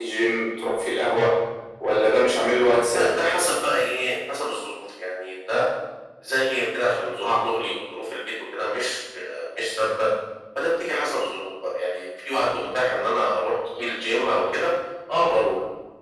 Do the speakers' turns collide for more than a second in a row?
No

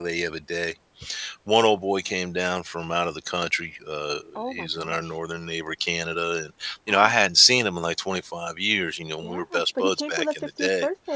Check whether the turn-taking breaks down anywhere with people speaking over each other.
Yes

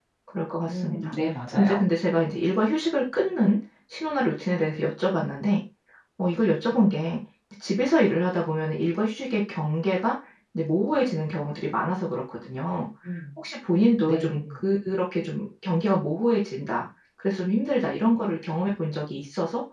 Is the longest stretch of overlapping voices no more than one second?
Yes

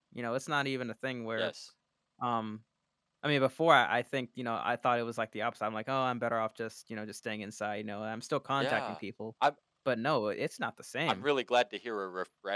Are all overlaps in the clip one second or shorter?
Yes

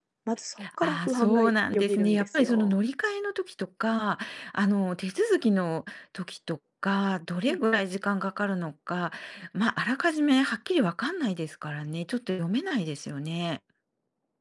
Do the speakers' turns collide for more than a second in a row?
Yes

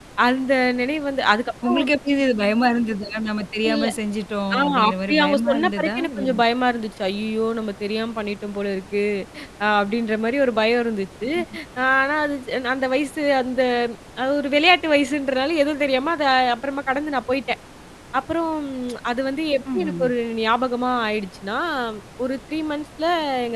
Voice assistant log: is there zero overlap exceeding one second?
No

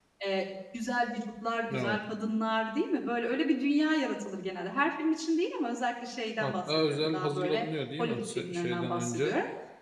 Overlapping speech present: Yes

